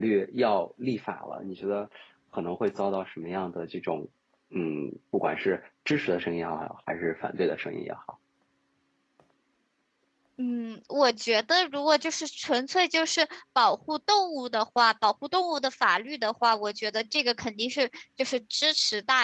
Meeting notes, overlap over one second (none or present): none